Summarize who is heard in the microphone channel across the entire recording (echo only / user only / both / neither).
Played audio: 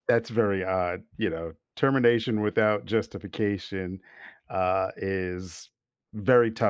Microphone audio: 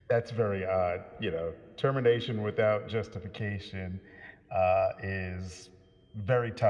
echo only